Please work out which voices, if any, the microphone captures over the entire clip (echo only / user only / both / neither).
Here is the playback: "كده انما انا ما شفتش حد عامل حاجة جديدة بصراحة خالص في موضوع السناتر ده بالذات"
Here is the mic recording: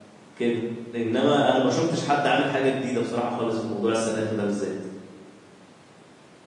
echo only